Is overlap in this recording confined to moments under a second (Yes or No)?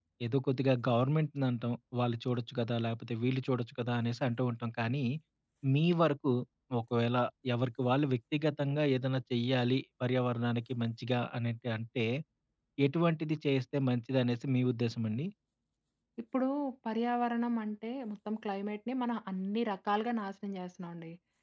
Yes